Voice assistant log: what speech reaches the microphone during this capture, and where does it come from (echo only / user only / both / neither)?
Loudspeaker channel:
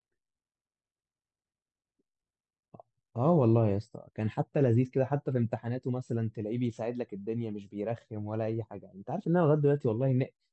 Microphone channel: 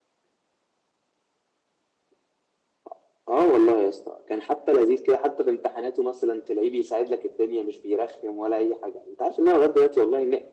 echo only